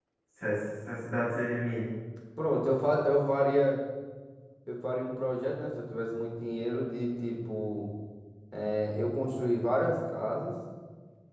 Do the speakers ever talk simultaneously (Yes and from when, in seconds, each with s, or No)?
No